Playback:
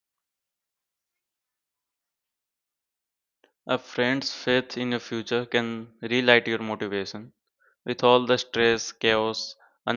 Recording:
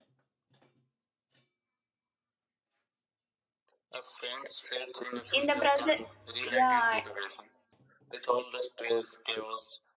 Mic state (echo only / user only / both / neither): both